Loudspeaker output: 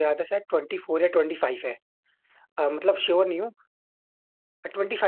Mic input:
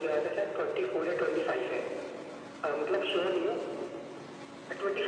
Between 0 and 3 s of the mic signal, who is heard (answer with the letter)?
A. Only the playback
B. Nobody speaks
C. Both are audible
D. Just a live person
A